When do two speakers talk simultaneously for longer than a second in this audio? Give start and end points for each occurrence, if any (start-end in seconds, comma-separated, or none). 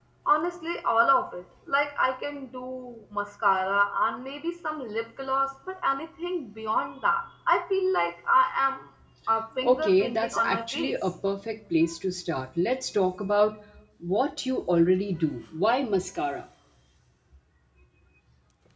9.6-10.9